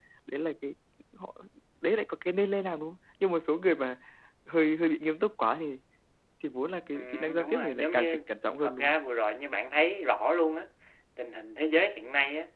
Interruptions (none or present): present